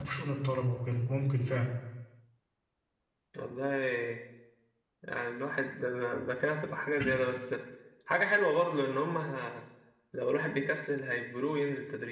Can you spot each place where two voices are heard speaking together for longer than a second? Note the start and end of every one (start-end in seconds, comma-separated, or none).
none